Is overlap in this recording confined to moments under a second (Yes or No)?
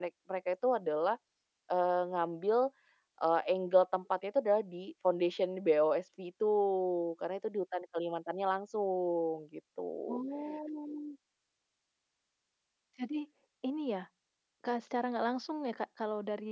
Yes